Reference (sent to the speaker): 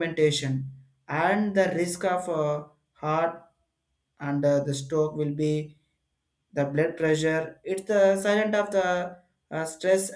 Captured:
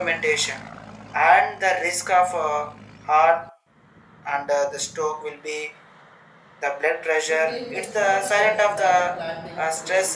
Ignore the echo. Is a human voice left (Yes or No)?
Yes